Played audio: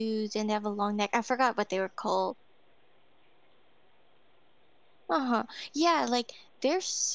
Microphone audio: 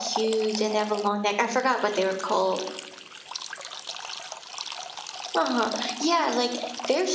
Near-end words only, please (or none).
none